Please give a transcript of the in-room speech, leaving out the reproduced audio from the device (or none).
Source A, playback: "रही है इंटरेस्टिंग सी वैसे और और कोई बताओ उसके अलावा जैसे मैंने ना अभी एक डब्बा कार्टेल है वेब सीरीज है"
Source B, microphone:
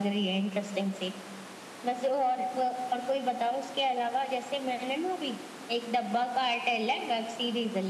none